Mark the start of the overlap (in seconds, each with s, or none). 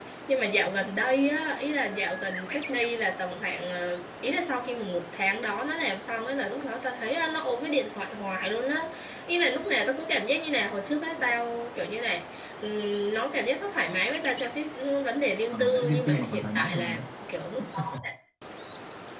15.5 s